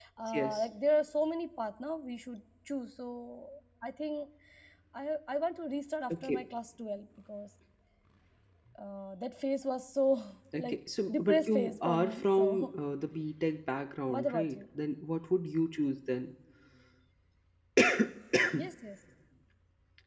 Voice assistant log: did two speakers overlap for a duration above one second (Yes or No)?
Yes